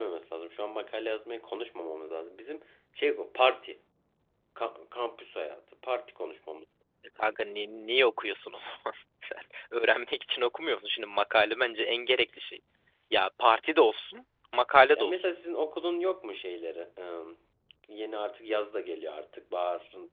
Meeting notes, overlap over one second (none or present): none